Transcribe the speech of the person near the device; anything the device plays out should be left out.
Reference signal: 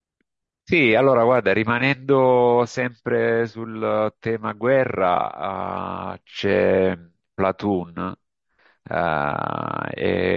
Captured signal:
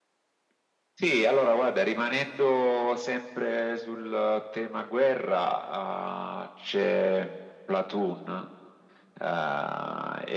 none

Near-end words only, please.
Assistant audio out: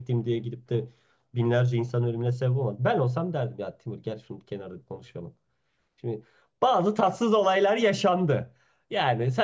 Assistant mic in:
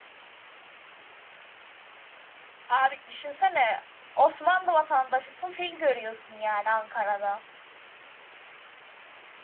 Abi düşünsene Osmanlı vatandaşısın fil görüyorsun yani Ankara'da.

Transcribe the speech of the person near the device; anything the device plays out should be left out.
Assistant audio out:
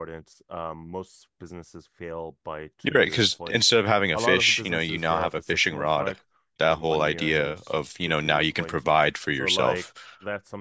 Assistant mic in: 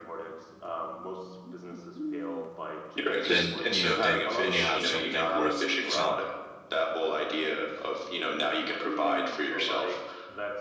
then you know, then then you have something worth selling.

